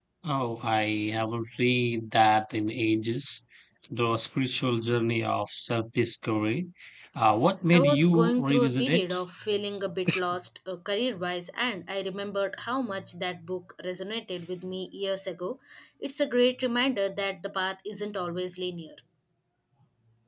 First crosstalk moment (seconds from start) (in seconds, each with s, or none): 7.7 s